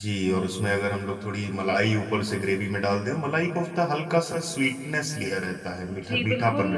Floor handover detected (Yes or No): Yes